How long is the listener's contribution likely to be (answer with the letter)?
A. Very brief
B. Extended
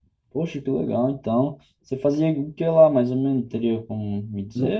B